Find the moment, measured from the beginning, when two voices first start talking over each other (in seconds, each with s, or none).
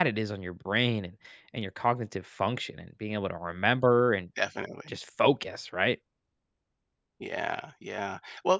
none